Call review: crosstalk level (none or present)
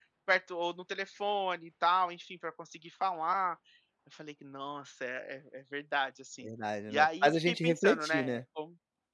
present